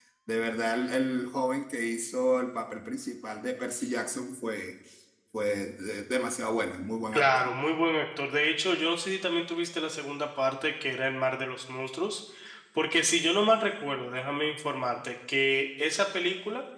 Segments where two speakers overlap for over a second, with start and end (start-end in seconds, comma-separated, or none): none